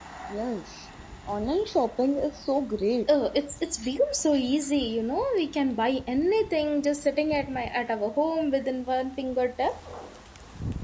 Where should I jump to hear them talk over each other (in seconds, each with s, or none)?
none